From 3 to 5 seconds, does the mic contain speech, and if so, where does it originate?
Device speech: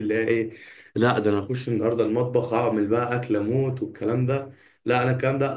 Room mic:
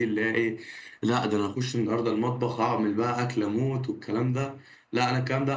echo only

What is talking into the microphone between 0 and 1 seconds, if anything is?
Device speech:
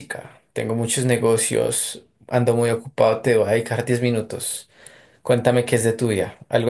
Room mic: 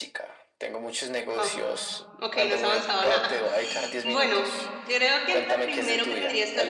echo only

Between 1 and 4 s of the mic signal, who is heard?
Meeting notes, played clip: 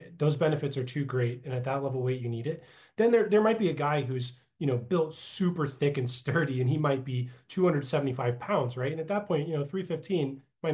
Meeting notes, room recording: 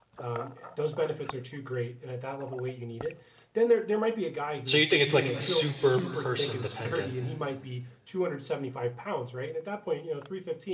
echo only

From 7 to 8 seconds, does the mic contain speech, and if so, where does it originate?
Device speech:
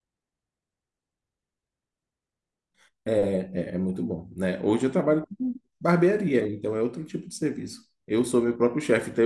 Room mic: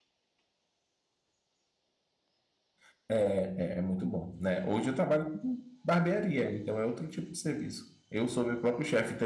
echo only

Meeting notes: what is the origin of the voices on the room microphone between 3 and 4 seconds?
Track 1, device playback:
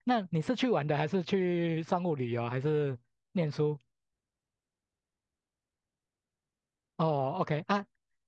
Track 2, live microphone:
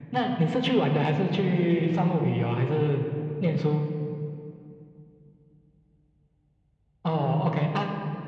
echo only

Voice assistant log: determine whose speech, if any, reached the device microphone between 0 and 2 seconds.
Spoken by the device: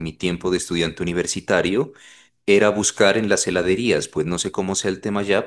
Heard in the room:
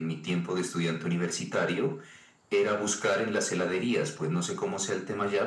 echo only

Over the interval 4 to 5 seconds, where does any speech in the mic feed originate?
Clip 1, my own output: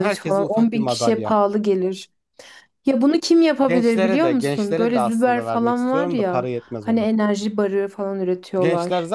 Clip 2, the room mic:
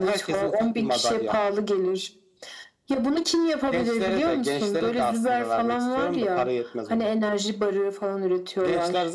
echo only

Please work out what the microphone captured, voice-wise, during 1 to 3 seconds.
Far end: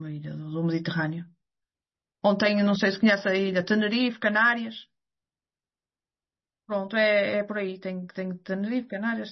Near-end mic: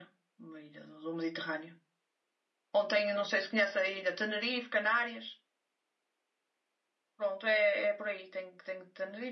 echo only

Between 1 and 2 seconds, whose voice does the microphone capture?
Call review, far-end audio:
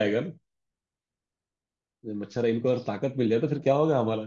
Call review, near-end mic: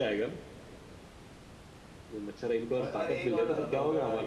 neither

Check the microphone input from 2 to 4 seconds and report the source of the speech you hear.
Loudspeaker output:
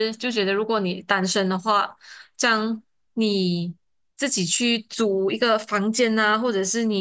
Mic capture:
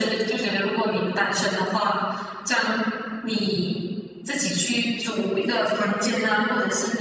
echo only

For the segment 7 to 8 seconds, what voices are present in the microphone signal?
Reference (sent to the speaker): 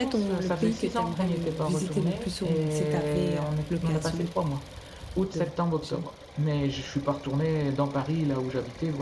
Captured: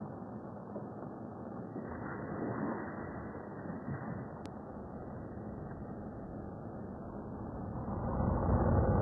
neither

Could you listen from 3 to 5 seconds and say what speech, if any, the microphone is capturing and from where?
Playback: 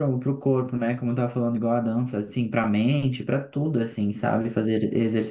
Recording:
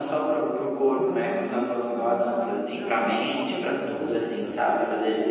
both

